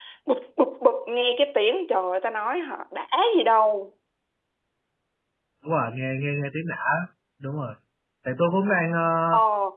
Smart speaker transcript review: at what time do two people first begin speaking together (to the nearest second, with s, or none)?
none